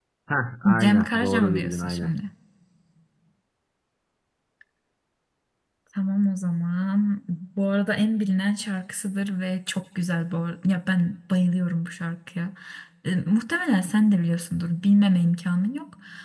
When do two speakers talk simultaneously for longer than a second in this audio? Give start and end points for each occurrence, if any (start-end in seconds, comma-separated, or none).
0.8-2.1